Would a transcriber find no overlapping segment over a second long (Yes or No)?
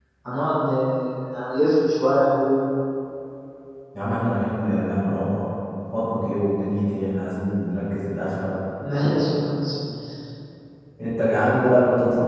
Yes